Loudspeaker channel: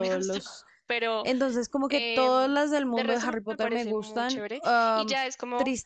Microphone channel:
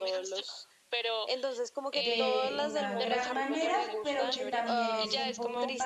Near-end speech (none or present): present